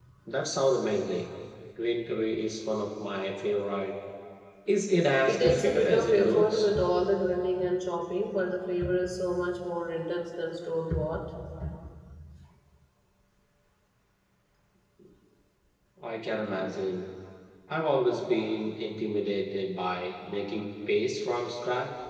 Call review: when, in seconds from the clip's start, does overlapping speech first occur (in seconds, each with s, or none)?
5.3 s